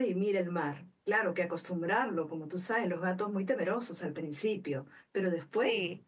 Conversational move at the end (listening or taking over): listening